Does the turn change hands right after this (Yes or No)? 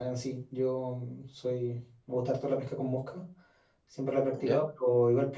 No